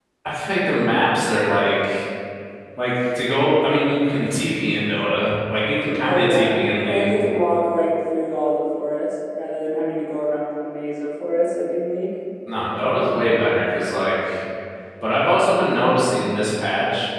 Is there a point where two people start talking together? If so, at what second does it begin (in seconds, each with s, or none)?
6.0 s